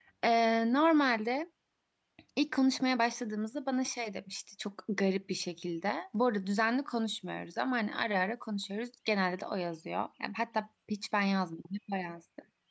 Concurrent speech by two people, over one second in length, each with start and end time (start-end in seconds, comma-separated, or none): none